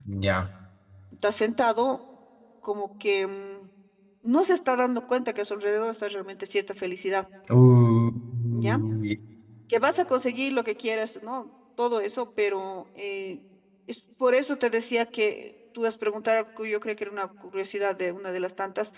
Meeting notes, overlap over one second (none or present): none